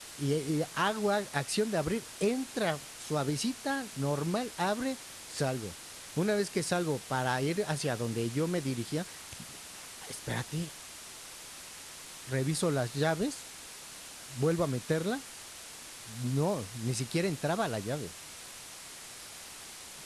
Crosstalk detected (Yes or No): No